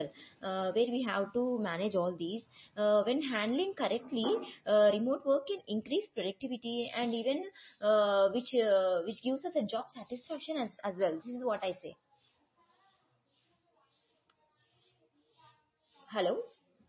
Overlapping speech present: No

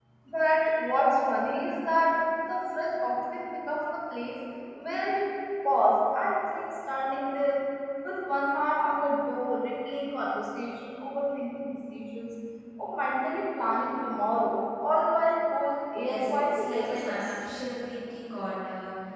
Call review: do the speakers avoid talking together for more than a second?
No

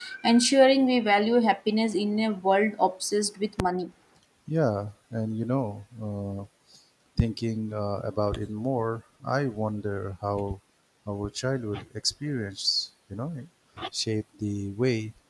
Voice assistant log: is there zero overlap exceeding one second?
Yes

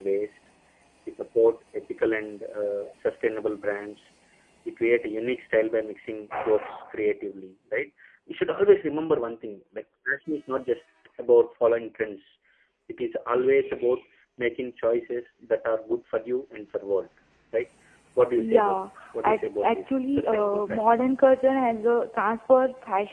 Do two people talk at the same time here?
Yes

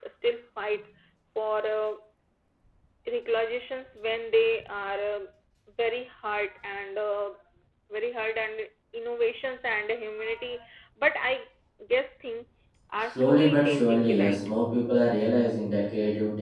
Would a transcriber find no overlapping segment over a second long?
No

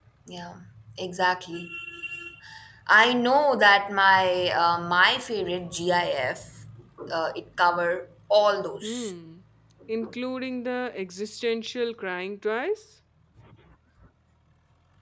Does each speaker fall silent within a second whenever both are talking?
Yes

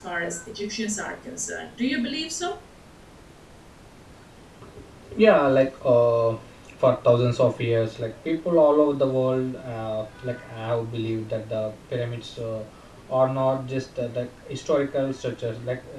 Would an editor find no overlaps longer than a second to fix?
Yes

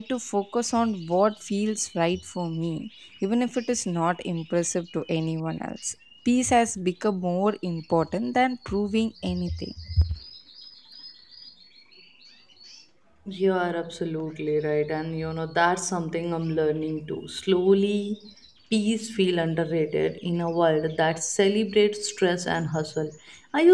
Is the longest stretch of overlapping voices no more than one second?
Yes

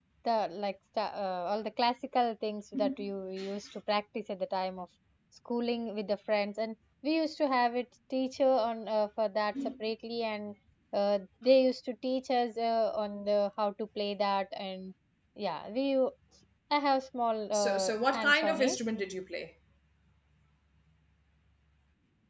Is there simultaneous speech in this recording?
Yes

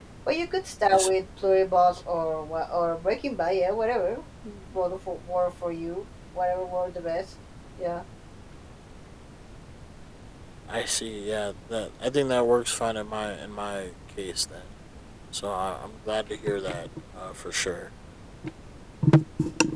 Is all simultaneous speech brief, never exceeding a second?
Yes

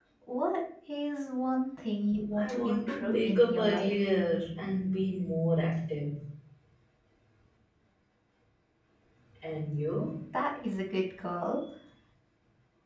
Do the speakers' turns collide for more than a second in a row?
Yes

